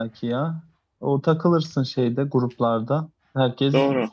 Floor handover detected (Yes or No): No